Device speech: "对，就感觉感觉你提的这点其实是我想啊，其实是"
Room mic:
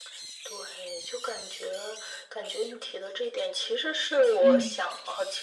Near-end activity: present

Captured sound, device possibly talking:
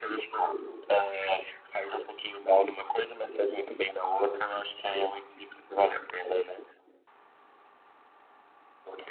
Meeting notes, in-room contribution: none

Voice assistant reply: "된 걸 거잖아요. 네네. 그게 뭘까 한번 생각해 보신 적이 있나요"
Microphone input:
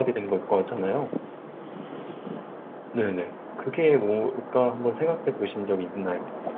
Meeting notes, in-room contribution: none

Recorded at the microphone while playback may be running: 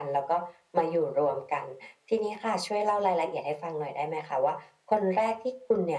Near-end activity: none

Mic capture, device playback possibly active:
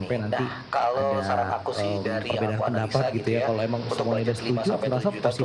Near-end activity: present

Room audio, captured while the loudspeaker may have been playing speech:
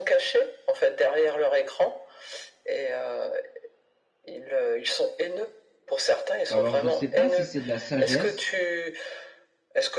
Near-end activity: present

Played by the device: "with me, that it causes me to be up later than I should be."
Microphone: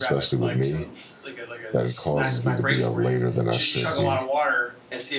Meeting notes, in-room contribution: present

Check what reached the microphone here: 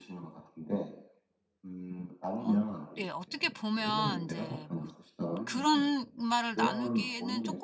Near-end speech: present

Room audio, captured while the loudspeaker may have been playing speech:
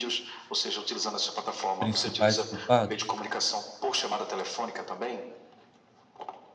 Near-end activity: present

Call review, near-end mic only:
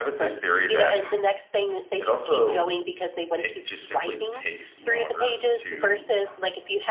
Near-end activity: present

